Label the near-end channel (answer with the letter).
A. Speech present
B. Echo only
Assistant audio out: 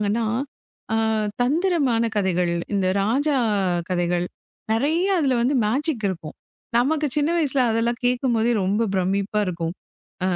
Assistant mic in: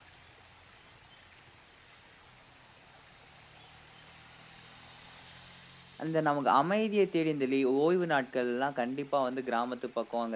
A